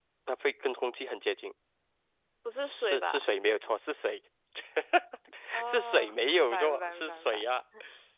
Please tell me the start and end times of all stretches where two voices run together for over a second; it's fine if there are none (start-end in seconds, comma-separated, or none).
5.6-7.4